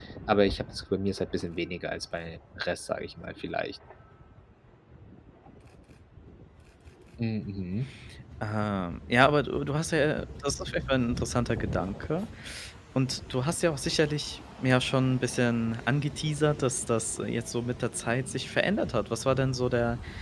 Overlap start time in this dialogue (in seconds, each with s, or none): none